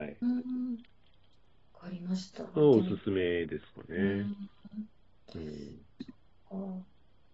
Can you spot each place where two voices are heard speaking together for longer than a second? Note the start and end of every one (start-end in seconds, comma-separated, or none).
none